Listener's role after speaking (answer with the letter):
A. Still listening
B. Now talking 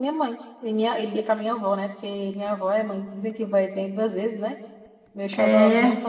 A